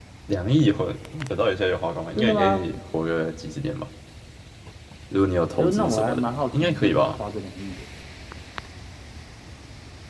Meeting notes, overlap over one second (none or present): present